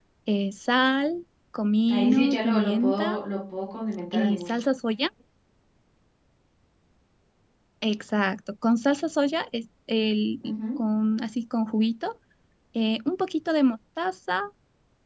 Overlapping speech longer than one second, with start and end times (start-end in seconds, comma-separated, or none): 1.9-3.2